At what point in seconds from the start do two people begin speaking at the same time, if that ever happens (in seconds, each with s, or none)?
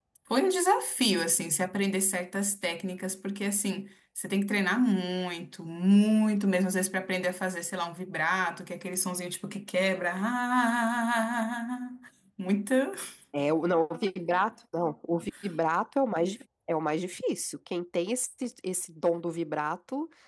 none